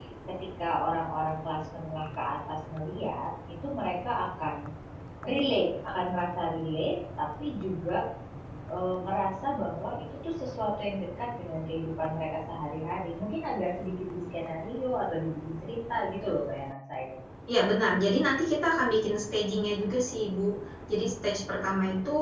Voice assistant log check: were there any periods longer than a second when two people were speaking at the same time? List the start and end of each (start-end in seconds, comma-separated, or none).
none